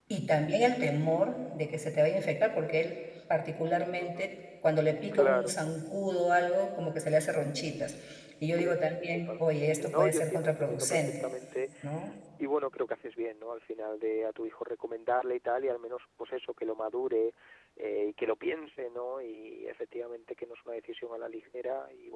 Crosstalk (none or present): present